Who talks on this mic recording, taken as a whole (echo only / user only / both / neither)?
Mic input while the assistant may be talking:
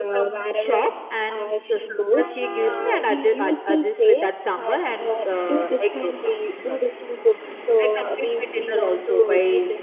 both